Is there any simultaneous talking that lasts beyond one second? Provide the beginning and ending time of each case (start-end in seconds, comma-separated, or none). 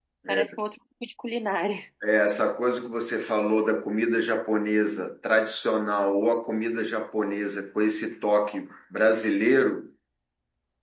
none